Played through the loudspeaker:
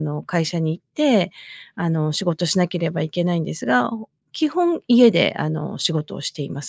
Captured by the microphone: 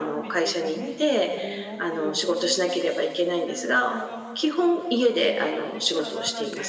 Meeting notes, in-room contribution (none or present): present